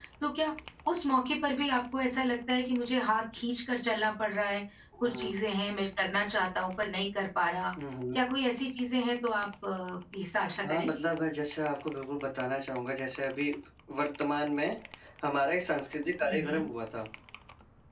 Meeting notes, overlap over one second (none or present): none